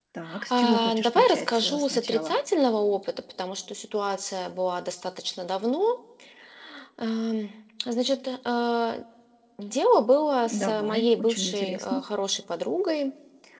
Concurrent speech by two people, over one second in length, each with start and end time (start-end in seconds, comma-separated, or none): 0.5-2.3, 10.5-12.0